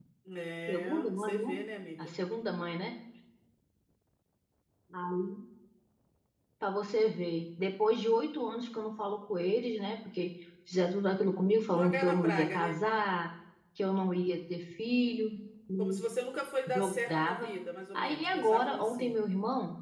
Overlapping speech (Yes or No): Yes